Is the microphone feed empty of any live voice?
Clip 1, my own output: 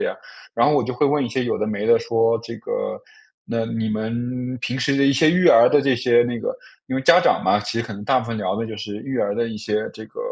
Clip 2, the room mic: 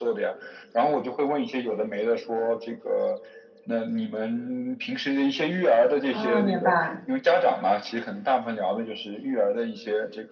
No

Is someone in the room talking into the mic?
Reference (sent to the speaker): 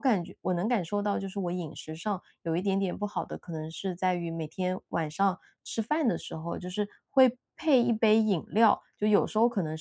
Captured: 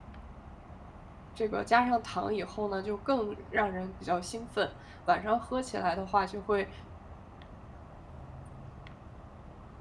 Yes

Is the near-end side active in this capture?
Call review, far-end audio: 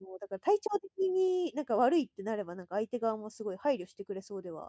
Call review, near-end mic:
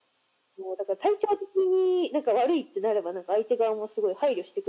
No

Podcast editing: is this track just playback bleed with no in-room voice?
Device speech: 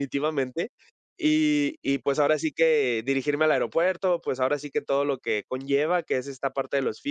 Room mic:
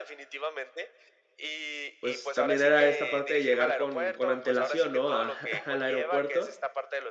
No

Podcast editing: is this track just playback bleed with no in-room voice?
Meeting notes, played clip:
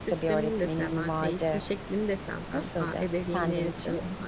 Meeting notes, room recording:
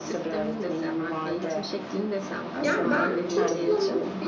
No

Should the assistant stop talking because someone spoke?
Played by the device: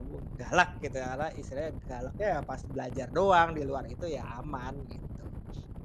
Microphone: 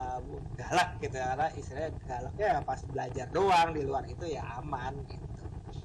No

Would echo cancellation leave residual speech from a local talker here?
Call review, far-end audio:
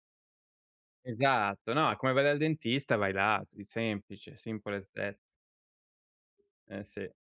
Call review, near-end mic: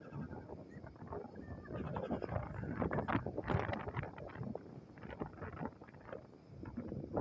No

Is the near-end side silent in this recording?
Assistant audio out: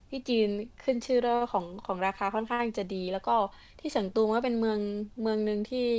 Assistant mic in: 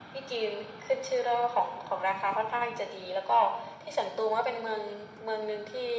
Yes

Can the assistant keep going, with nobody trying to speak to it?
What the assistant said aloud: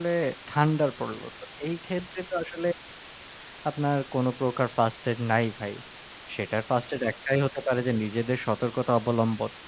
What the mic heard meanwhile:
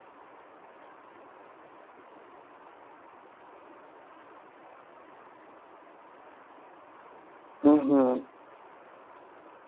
No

